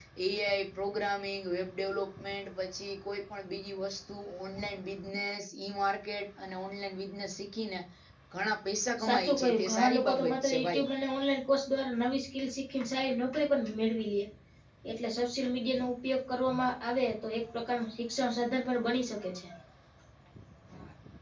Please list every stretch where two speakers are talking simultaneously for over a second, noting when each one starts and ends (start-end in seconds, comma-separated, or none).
9.0-10.8